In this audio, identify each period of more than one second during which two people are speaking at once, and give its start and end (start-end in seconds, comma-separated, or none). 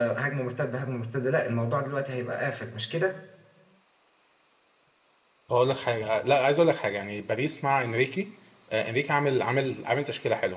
none